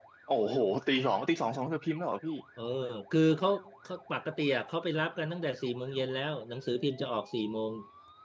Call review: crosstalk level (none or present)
none